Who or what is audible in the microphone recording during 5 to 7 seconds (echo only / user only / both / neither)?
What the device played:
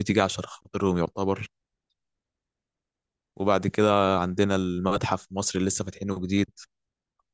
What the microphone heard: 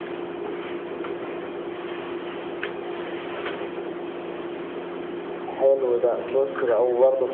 user only